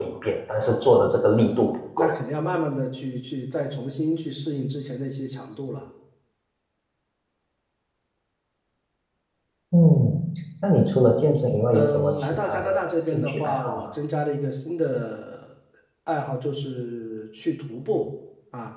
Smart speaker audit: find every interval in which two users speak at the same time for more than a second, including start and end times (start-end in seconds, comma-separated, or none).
11.7-13.9